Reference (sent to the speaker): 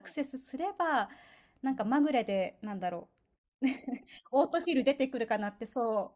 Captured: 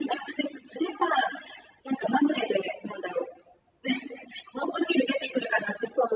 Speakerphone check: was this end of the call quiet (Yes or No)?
Yes